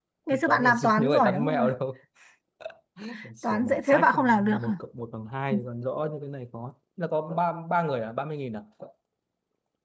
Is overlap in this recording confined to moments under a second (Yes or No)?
No